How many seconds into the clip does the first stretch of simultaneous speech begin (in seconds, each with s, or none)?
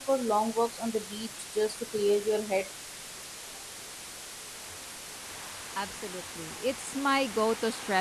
none